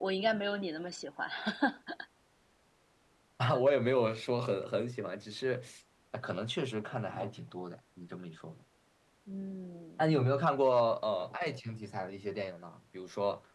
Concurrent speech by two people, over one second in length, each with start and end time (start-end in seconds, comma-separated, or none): none